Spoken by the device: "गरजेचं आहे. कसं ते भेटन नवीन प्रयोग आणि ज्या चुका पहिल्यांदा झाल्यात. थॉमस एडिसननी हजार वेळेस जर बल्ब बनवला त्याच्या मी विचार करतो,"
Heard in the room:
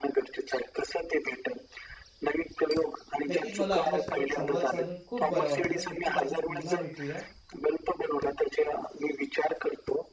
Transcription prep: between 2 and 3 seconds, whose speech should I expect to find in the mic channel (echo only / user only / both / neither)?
echo only